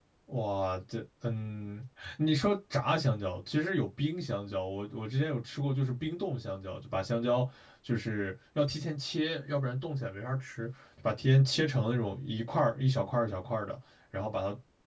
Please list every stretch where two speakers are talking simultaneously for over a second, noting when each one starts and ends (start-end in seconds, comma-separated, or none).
none